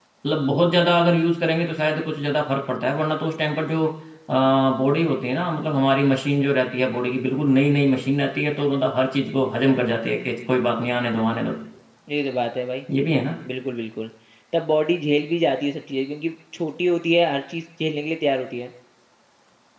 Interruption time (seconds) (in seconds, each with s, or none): none